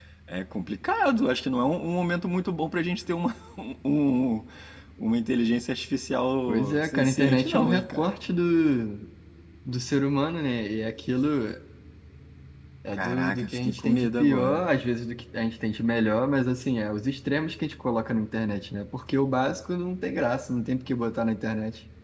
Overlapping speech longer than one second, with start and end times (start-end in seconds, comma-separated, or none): 6.5-8.1, 12.9-14.7